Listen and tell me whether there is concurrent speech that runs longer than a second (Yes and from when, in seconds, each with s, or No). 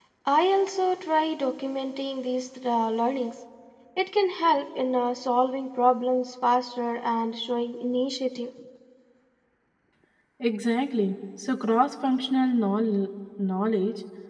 No